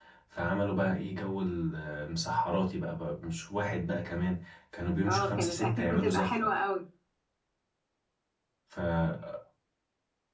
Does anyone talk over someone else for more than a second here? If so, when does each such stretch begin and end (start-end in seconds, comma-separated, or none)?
5.0-6.5